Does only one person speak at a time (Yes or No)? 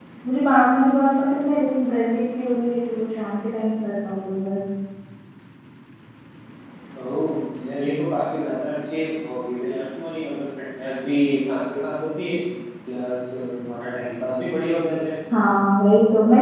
Yes